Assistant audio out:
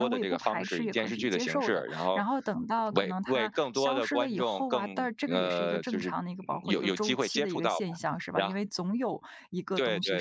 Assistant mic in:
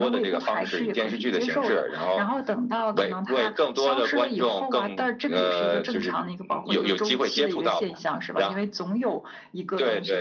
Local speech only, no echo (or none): none